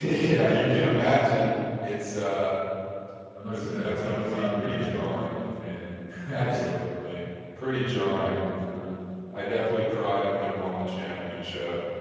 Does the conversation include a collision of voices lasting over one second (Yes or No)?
Yes